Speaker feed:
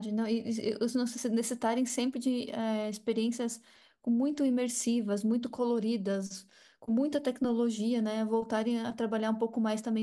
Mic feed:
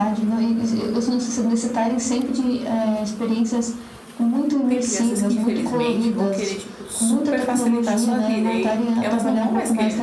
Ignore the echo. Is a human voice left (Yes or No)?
Yes